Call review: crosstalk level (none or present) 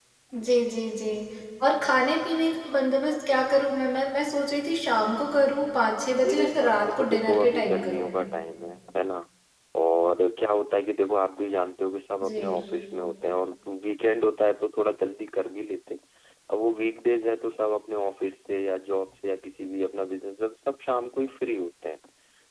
present